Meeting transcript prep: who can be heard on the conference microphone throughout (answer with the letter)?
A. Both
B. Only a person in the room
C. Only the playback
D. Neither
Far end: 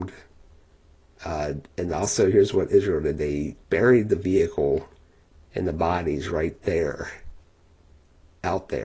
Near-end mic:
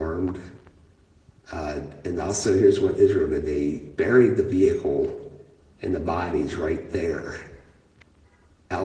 C